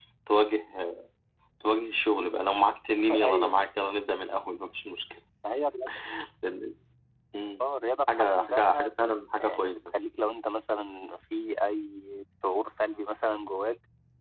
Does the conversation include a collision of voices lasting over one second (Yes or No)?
Yes